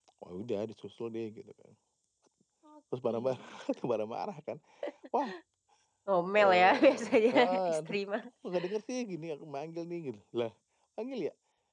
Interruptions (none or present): present